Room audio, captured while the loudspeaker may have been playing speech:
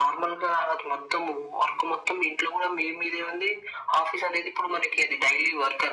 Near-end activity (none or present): none